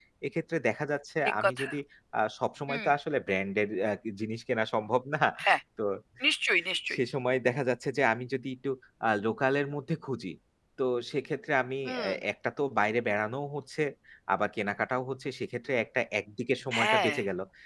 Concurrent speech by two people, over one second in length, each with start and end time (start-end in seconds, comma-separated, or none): none